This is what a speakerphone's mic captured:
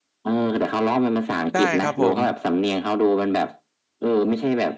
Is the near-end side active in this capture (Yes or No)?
Yes